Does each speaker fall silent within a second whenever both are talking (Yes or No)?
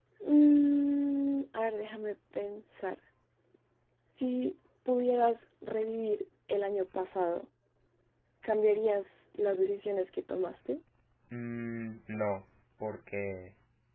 Yes